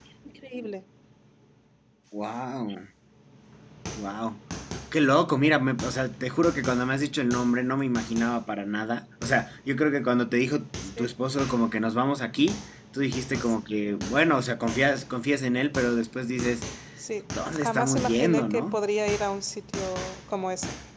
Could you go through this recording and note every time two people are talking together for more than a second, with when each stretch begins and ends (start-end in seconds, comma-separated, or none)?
17.5-18.8